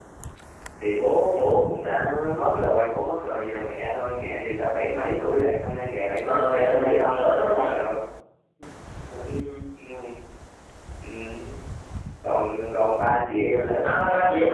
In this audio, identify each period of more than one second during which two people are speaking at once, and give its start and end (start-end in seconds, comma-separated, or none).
6.2-7.6